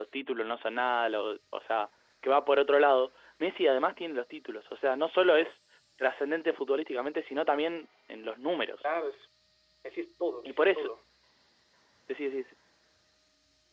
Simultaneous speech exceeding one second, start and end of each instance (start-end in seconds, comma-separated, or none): none